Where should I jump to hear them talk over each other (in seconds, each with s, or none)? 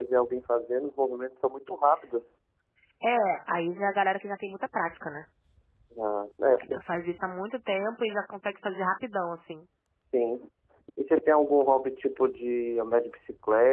none